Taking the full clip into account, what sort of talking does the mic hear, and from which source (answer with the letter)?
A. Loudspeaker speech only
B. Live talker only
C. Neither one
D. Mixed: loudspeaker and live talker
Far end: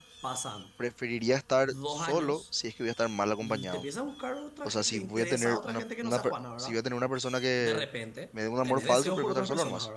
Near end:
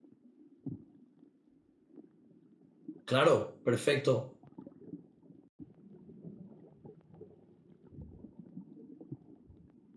B